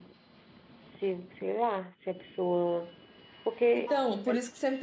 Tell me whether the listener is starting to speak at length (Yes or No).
Yes